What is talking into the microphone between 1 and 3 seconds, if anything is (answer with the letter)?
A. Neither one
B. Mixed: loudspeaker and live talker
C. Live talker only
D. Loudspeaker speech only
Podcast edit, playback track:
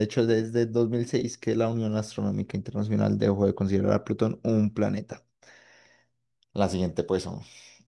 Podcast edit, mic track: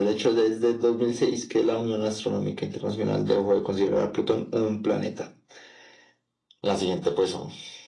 D